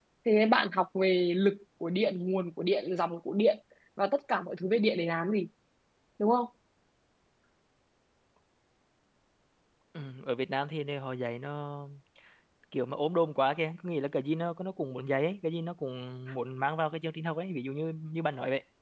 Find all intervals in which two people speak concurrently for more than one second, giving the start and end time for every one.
none

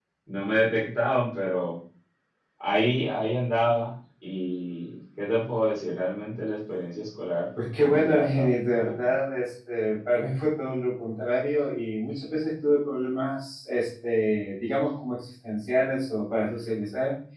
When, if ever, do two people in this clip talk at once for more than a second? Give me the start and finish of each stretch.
7.8-9.1

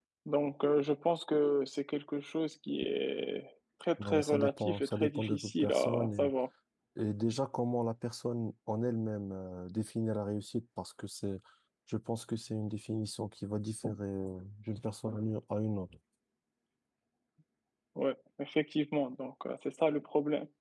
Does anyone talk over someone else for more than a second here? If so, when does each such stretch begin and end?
4.0-6.3

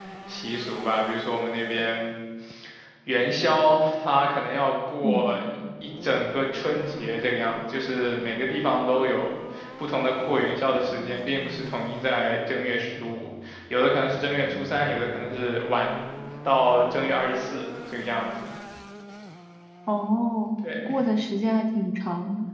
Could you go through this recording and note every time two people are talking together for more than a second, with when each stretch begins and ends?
none

